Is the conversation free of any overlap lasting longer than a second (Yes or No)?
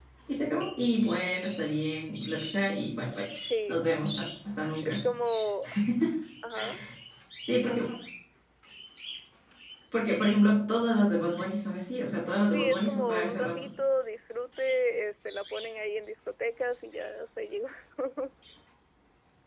No